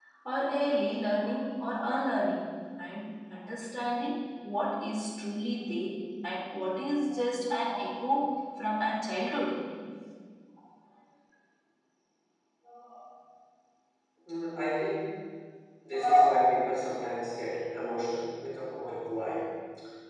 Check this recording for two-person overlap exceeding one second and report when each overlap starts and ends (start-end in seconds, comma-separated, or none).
none